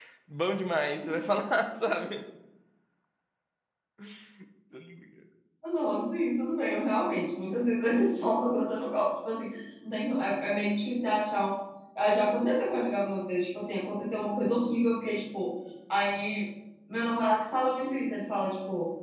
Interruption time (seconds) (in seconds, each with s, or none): none